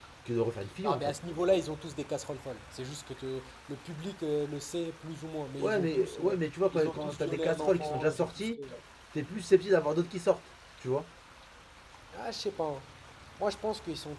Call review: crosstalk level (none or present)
present